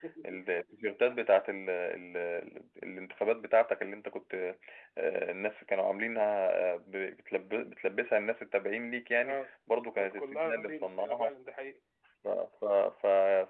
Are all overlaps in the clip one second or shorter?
No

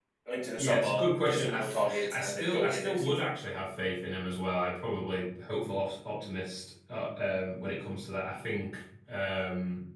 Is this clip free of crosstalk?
No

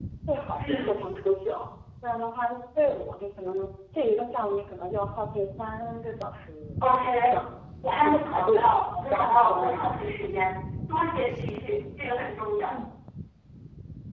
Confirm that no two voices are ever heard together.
No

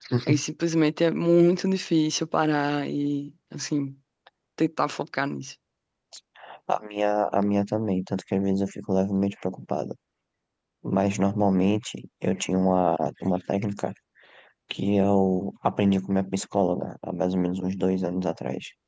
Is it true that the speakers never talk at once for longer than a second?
Yes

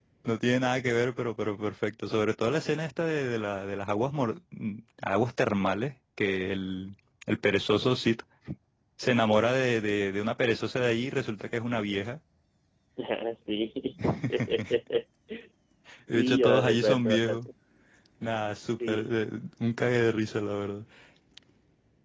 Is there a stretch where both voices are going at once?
Yes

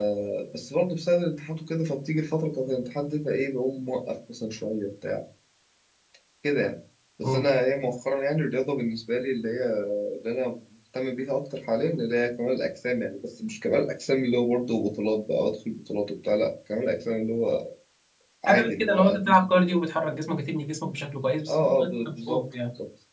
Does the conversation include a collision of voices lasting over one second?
Yes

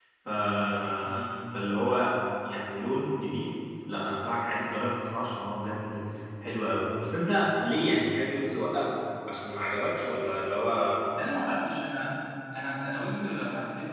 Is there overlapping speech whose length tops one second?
No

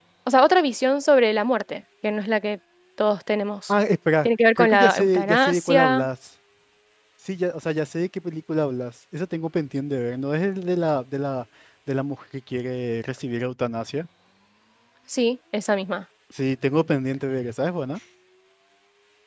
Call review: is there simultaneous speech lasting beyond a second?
Yes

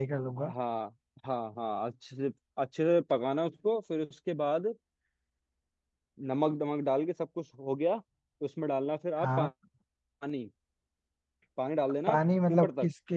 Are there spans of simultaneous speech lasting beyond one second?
No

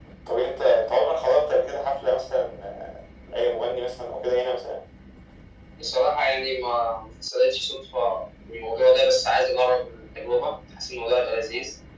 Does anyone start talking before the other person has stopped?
No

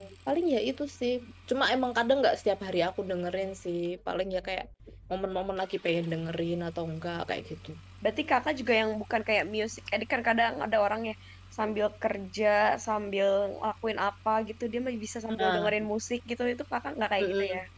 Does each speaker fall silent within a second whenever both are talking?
Yes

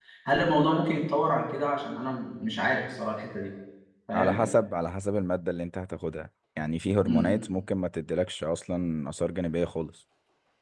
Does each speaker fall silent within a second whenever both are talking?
Yes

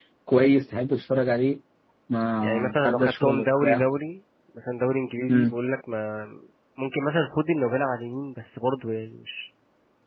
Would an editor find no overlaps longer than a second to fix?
No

